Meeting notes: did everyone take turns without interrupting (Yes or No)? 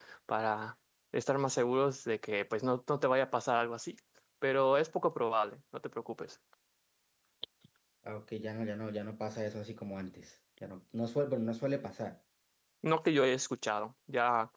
Yes